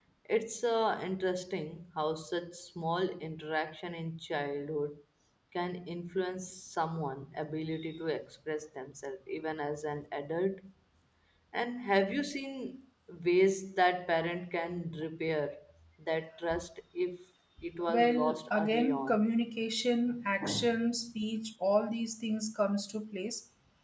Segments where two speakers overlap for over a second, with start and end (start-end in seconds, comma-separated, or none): 17.9-19.2